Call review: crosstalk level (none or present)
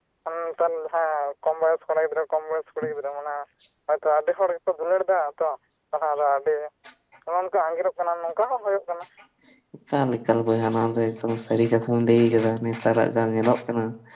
none